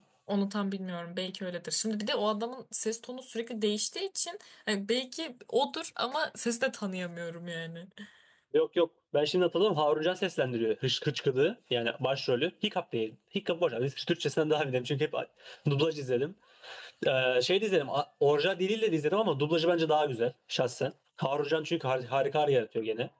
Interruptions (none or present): none